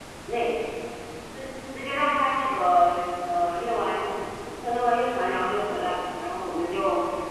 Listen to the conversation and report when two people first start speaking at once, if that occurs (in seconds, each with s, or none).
none